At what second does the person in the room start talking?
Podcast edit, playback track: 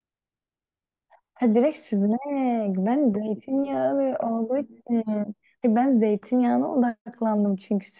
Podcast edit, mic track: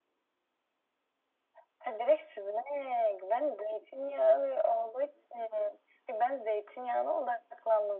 none

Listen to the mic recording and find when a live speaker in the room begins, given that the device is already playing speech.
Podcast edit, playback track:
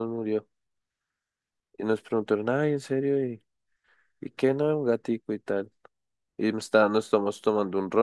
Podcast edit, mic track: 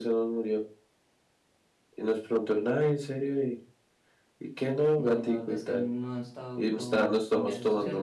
5.0 s

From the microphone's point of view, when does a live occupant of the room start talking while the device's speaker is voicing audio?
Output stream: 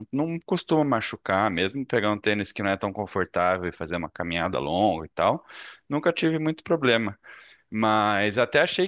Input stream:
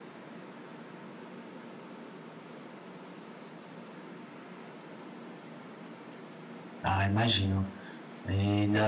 6.8 s

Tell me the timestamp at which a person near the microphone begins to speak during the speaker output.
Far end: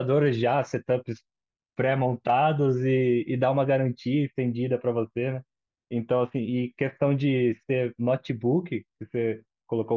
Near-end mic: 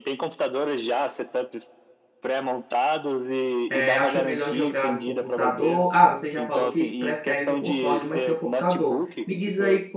3.7 s

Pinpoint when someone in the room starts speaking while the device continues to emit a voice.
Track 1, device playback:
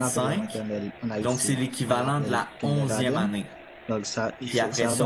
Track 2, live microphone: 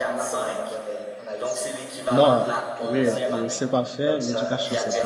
2.1 s

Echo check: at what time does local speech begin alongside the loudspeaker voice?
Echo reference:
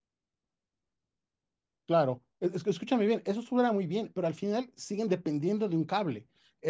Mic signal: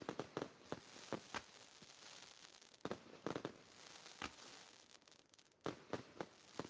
none

